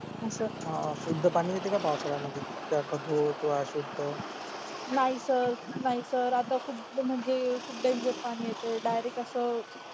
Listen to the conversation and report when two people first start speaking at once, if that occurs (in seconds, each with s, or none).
none